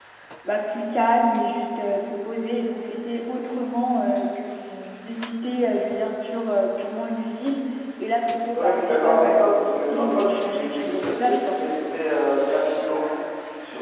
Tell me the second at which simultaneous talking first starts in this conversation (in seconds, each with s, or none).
8.5 s